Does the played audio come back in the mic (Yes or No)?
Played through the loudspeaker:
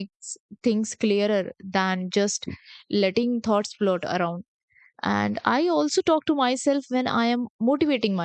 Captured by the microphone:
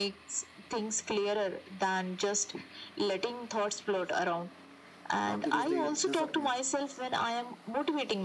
Yes